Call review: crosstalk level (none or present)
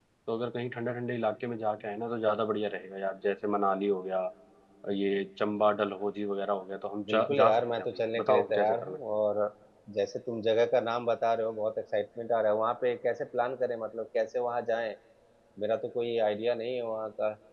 present